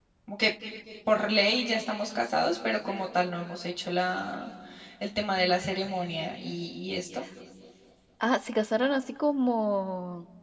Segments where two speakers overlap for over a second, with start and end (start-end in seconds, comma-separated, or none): none